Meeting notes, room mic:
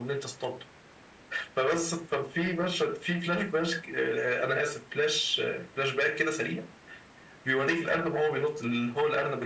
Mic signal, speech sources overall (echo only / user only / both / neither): echo only